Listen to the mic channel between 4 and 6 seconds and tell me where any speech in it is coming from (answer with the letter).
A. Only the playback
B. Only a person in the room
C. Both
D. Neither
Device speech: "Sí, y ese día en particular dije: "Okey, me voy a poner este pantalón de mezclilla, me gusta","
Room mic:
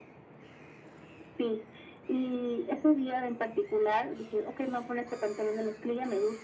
A